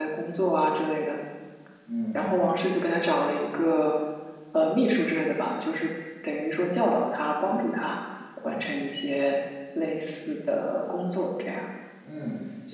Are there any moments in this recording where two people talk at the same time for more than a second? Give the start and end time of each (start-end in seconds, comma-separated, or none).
none